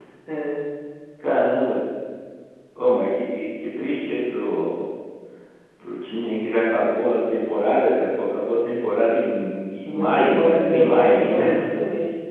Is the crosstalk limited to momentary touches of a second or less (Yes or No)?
No